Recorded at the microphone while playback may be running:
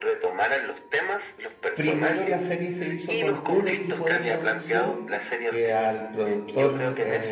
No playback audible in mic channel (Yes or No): No